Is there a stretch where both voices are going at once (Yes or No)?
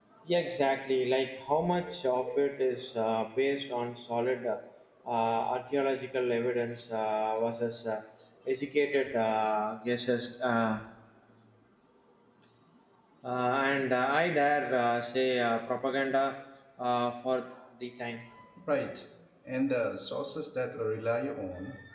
No